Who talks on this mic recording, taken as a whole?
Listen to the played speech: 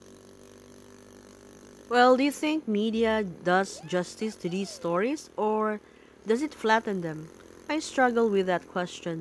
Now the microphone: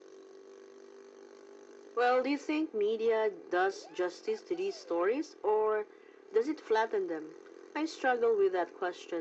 echo only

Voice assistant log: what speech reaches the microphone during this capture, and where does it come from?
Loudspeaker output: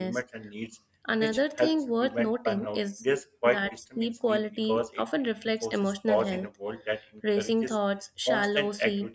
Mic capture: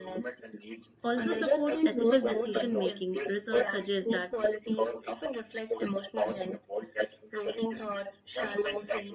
both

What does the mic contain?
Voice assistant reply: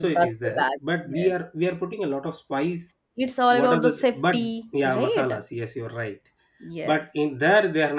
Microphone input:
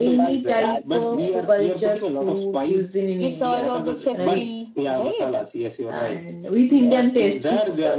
both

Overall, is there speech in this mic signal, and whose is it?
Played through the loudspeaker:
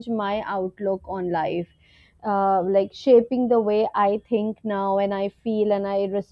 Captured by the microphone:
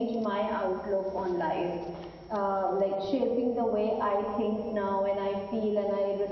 echo only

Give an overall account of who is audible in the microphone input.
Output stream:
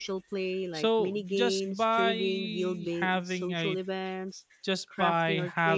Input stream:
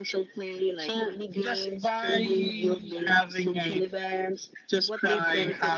both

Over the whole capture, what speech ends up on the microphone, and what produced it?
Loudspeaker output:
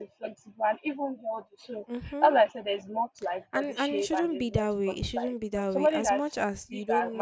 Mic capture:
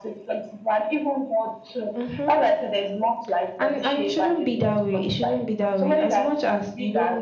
echo only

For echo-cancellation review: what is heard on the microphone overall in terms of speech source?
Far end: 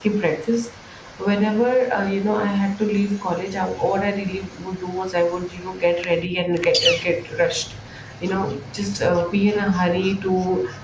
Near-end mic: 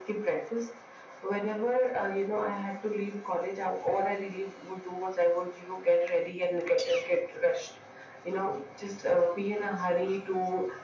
echo only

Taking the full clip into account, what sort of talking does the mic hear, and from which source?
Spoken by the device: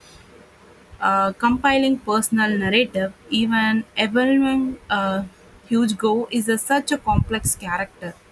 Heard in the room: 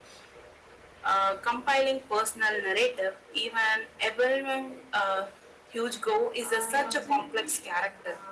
both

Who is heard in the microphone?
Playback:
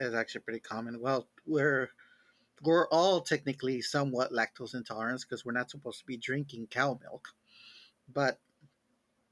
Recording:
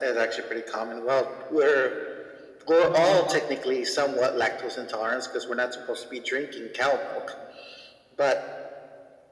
both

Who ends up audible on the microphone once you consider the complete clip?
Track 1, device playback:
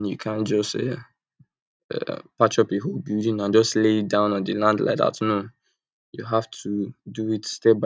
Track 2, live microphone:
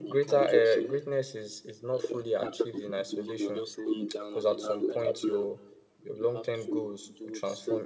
both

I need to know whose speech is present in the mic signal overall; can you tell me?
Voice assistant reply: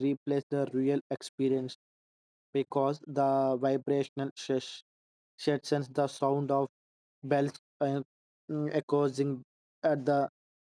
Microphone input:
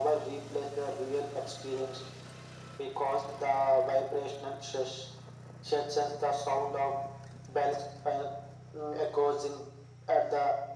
echo only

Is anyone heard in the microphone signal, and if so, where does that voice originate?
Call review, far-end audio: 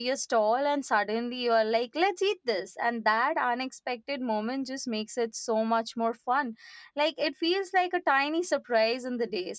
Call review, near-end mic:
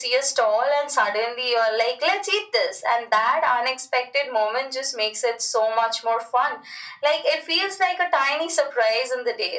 echo only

